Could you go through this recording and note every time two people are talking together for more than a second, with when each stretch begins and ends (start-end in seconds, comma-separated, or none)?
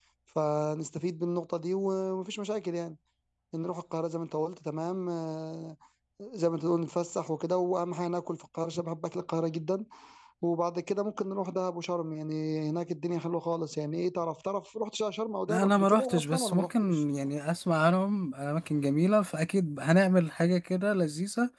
15.5-17.0